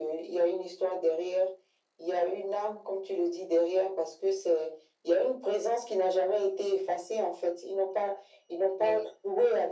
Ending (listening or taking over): listening